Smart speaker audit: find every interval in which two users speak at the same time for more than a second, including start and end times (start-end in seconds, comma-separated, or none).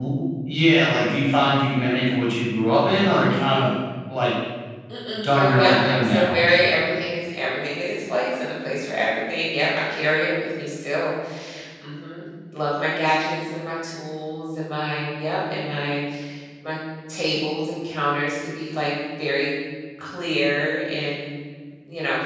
5.2-6.4